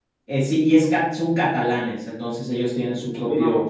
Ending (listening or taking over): listening